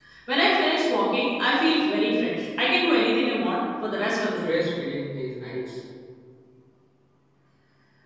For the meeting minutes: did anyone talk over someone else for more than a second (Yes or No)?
No